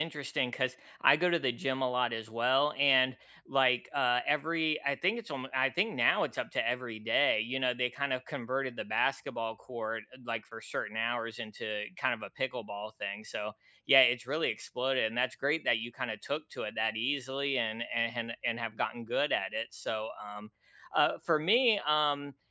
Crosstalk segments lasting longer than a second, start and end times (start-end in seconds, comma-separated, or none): none